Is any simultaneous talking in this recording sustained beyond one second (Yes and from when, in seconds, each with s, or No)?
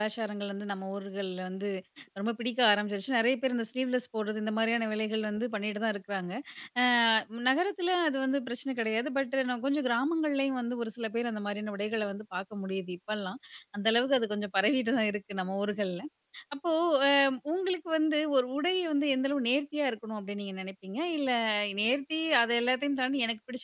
No